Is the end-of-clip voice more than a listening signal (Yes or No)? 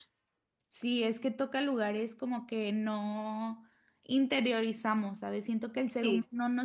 No